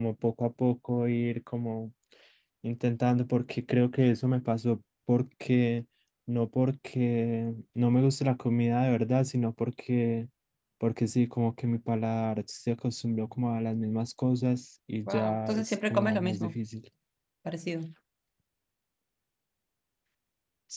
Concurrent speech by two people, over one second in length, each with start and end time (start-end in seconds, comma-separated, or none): 15.1-16.6